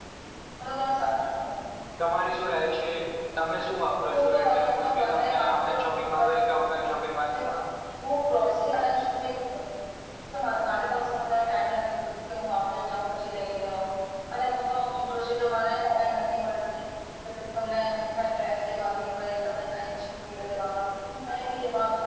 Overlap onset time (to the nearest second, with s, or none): 4 s